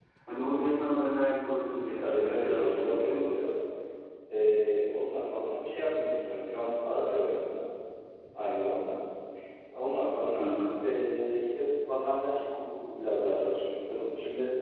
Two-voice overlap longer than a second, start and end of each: 2.0-3.5

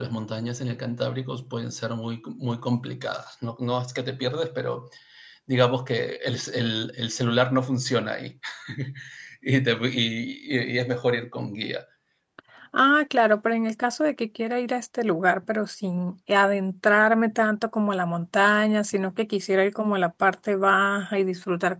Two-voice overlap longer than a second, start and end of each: none

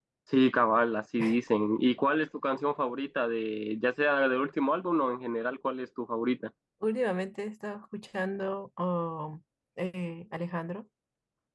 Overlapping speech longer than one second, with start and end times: none

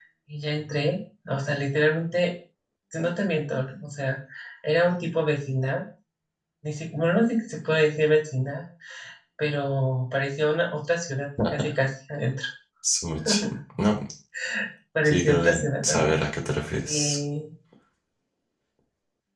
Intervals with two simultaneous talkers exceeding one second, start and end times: 15.0-16.3

